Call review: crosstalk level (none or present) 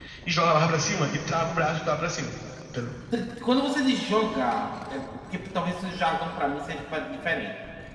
none